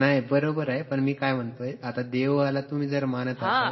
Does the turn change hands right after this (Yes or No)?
Yes